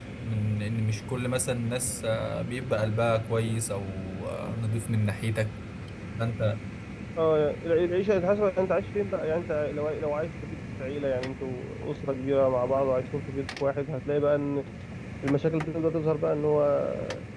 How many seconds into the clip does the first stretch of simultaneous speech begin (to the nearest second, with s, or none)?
none